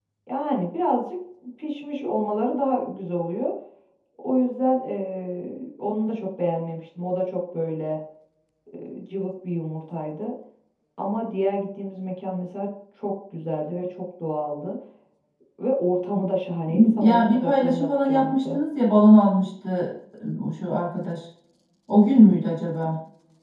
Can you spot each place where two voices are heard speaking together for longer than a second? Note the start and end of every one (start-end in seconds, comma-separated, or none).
17.0-18.6